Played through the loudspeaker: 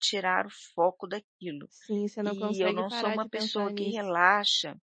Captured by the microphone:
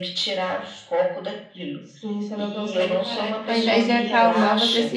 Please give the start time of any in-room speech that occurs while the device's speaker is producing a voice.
3.5 s

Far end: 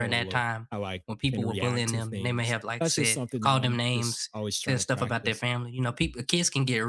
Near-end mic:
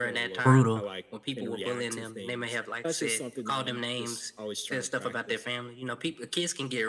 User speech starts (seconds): 0.4 s

